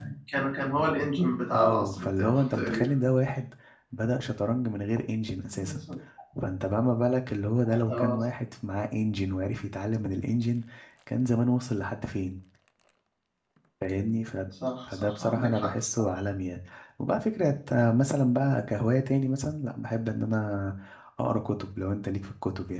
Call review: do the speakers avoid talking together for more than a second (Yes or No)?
No